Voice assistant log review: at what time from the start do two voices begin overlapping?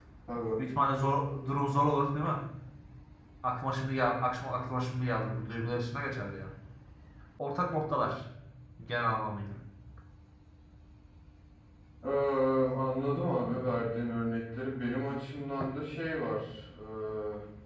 none

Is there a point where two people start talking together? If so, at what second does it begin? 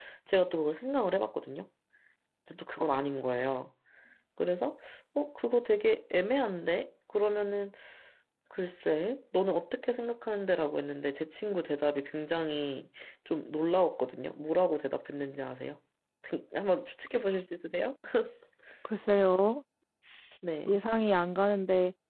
none

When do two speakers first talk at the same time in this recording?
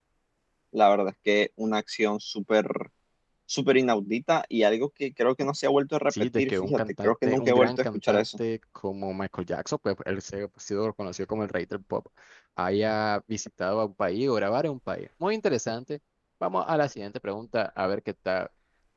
6.1 s

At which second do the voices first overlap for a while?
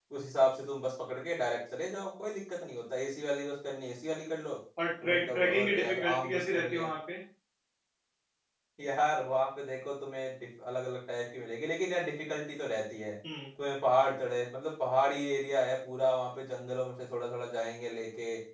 5.0 s

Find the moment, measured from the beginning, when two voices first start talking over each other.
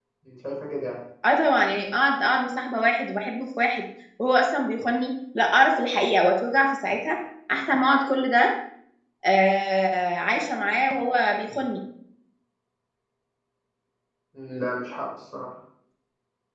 none

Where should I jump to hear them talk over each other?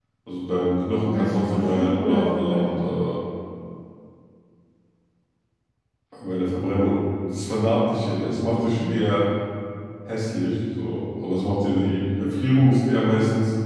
1.1 s

